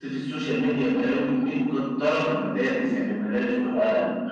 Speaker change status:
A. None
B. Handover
B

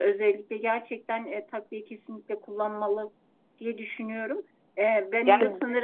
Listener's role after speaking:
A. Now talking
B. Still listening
B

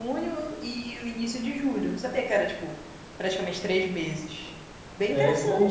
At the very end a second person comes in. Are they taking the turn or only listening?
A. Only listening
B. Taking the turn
B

